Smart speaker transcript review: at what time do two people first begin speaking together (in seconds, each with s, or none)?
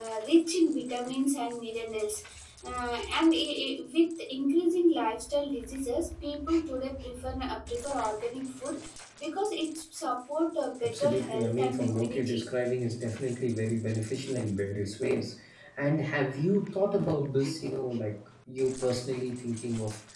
10.8 s